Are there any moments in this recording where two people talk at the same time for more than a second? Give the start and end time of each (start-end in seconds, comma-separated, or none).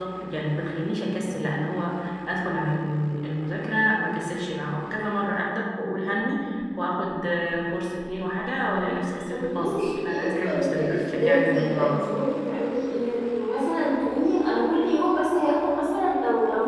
9.3-12.2